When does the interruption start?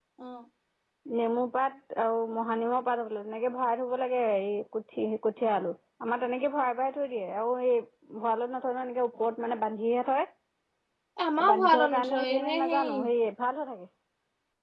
11.2 s

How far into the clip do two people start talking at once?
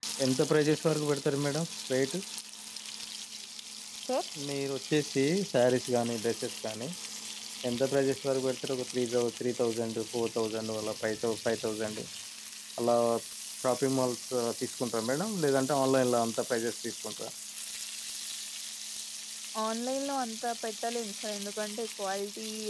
none

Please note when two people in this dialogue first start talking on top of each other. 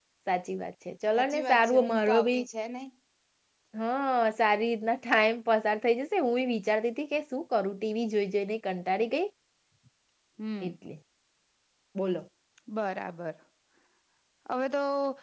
1.2 s

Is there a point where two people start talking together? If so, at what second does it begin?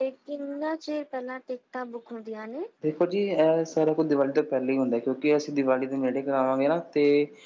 none

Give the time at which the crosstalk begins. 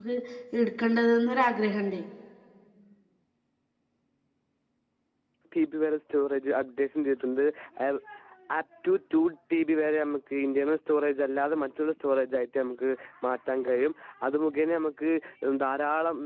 none

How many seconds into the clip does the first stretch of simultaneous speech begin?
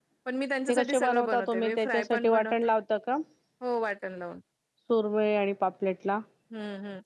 0.7 s

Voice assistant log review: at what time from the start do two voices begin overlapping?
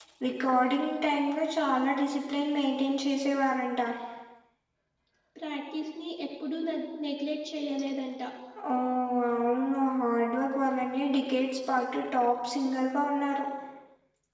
none

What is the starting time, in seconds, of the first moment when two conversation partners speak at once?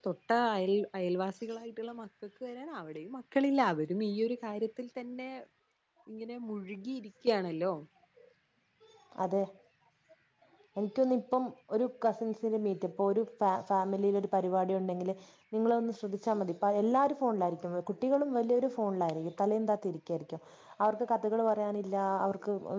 none

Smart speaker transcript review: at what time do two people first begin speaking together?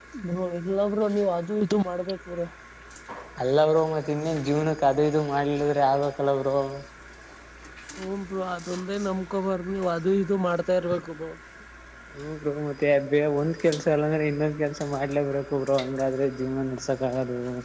none

